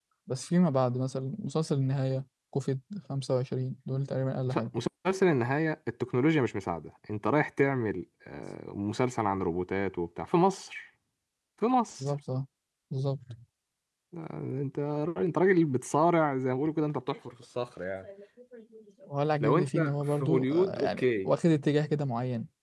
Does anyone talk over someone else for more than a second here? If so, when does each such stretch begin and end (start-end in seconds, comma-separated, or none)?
19.4-21.3